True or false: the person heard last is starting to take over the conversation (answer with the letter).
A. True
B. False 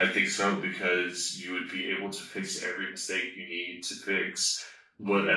B